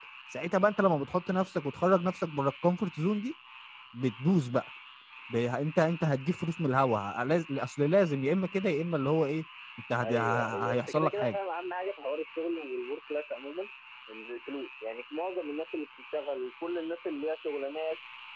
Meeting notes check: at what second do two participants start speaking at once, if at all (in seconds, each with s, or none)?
10.0 s